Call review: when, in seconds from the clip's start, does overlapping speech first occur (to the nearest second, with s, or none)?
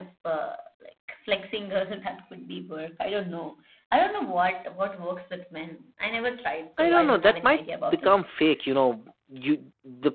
7 s